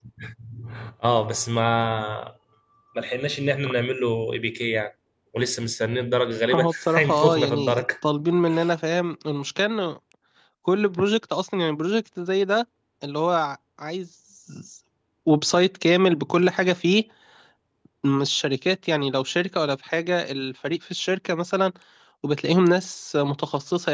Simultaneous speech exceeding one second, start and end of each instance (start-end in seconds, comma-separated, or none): 6.5-7.8